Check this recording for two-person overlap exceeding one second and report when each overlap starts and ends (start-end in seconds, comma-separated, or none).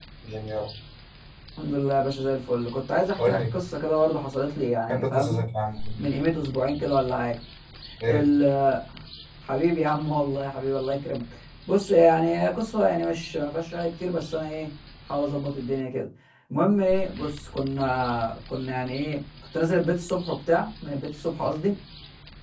none